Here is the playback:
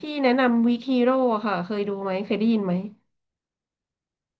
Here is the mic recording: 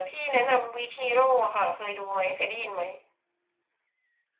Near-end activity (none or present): none